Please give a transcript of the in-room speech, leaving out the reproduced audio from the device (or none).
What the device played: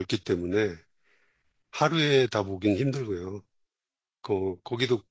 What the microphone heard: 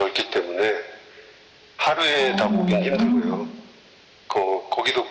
어, 멀구나.